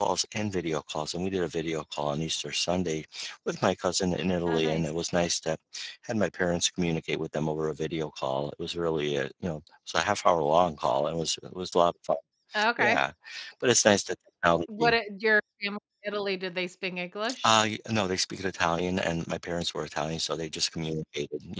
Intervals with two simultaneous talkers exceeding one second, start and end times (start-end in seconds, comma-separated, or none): none